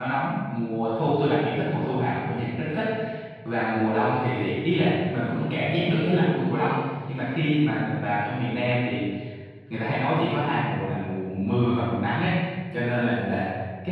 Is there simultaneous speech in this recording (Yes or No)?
No